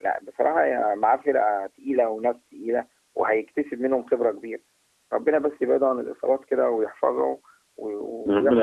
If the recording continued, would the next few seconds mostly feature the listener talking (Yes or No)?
Yes